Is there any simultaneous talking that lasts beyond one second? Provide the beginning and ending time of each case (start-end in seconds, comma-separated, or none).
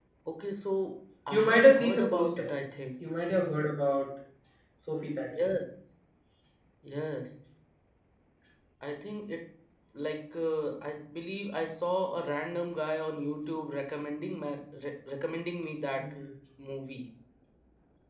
1.3-2.5